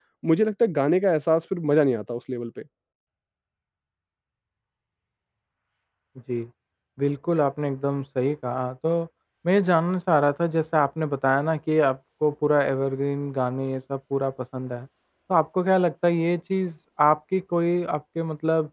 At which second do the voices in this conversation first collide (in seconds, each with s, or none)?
none